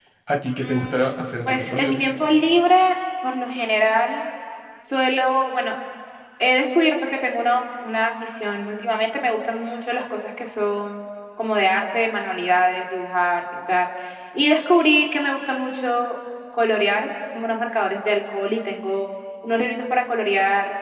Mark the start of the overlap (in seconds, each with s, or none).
0.6 s